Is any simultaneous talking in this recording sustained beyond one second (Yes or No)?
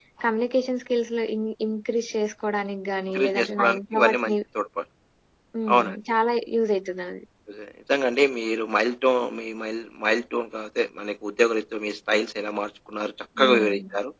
Yes